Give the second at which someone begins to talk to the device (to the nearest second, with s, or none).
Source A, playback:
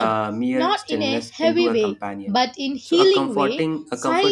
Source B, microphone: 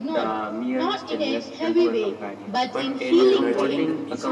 3 s